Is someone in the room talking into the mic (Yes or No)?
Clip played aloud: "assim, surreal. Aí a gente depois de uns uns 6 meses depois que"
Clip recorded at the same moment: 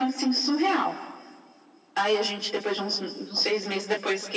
No